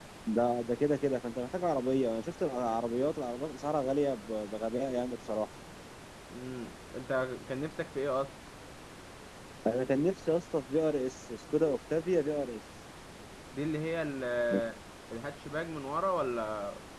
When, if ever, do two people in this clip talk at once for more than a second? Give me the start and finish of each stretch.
none

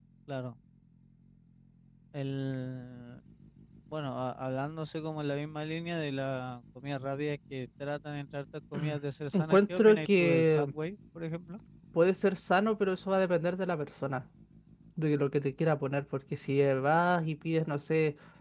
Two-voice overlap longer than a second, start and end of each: 9.3-10.7

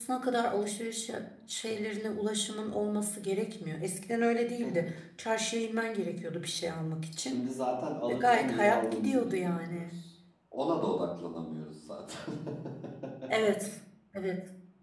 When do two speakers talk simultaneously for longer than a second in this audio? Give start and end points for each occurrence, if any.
8.1-9.8

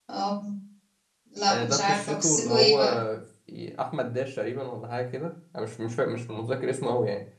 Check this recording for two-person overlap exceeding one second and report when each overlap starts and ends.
1.5-2.8

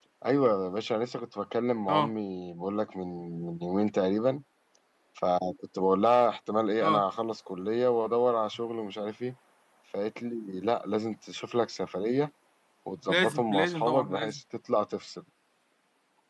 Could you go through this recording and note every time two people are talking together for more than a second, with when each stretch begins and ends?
13.1-14.4

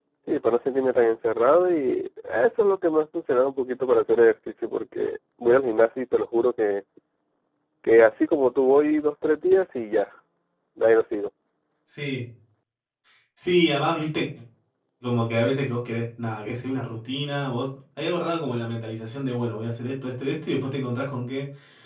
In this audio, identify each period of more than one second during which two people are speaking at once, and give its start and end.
none

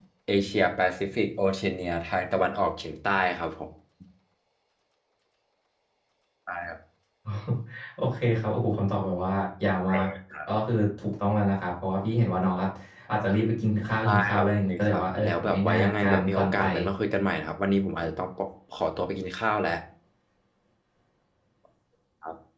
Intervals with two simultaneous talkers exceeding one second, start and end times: 14.0-16.6

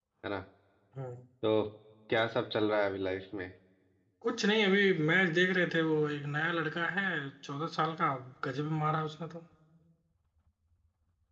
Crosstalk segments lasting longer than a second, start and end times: none

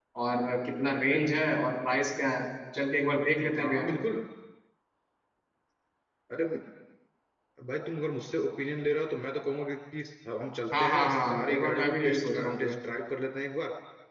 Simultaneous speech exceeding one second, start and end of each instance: 10.8-12.8

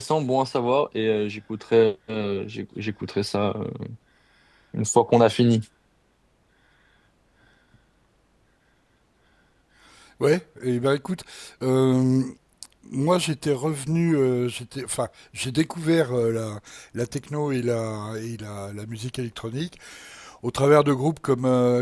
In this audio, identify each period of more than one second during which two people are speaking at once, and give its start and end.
none

